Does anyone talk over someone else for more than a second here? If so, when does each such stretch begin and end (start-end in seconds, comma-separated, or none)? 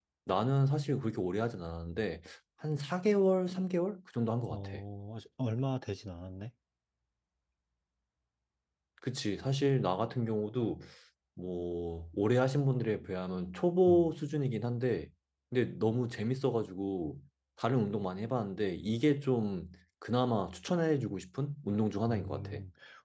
none